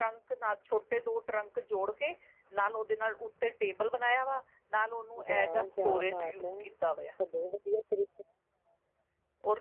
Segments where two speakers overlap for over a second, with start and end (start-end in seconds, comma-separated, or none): 5.3-6.5